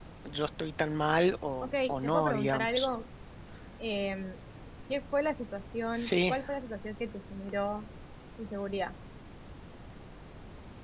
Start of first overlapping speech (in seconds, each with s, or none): 1.6 s